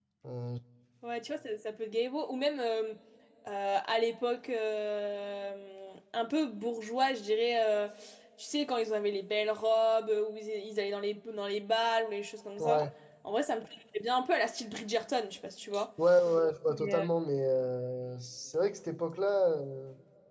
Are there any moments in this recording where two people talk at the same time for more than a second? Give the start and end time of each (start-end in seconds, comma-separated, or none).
none